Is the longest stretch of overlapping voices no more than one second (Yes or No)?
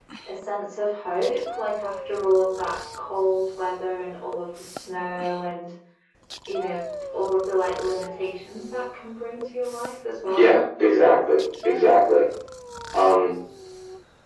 Yes